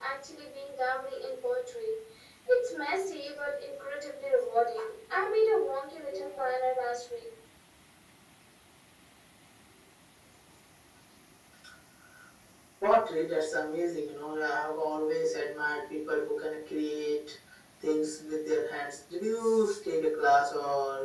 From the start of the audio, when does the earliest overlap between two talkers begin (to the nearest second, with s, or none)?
none